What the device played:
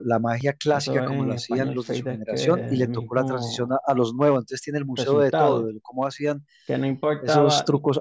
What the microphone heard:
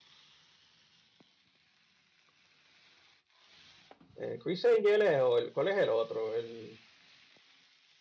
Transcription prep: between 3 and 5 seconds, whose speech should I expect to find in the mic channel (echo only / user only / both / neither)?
user only